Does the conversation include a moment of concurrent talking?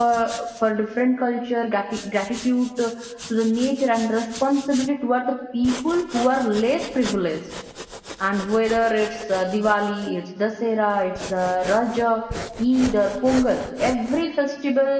No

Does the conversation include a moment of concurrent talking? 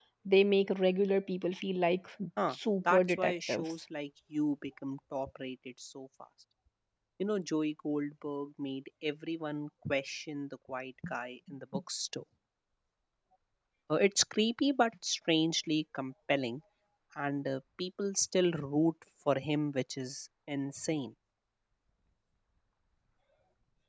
Yes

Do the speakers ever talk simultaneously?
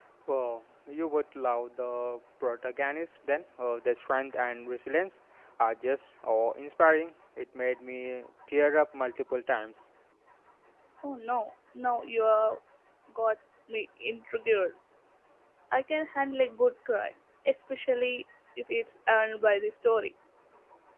No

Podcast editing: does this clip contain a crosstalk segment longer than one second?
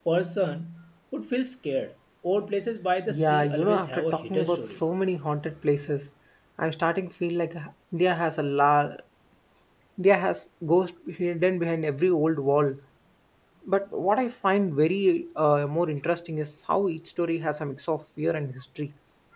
Yes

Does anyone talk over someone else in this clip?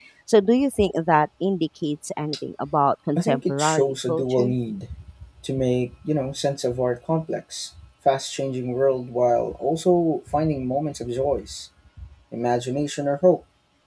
Yes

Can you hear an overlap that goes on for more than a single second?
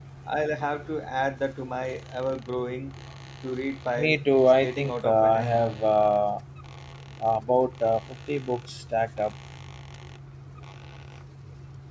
Yes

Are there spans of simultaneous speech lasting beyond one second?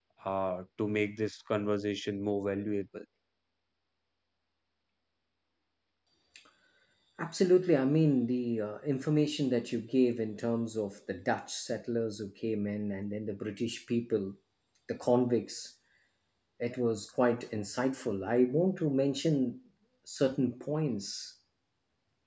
No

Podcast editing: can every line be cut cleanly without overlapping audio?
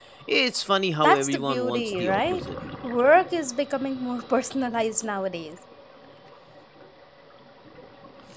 No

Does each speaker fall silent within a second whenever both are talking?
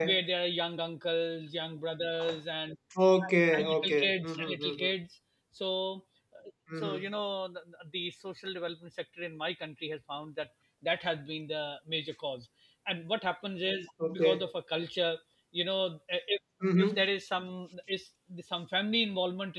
No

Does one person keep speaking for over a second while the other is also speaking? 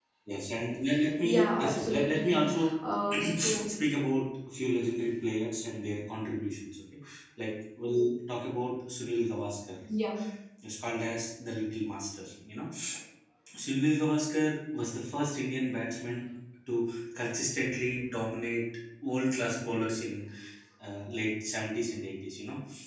Yes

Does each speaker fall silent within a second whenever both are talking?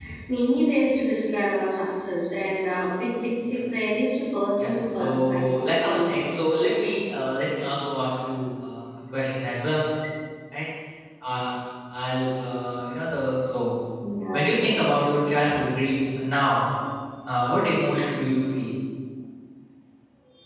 No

